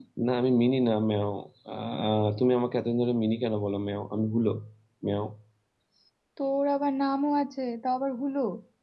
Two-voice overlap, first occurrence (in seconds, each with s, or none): none